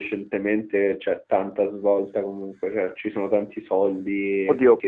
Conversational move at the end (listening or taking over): taking over